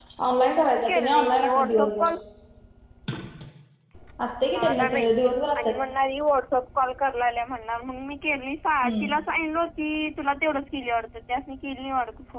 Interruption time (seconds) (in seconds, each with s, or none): 0.6 s